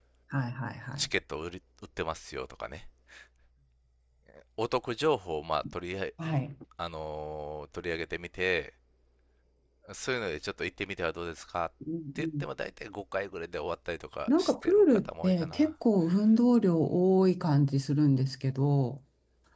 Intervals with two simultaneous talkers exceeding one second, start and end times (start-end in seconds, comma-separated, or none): 14.3-15.7